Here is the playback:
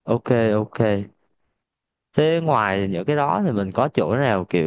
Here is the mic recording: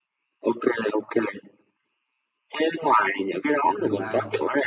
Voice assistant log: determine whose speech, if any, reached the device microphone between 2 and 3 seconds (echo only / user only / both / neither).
echo only